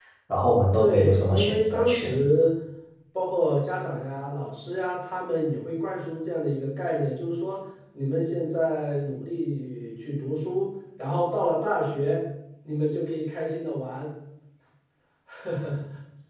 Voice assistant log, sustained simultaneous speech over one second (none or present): present